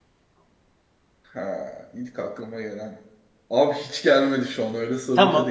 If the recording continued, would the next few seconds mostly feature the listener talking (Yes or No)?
Yes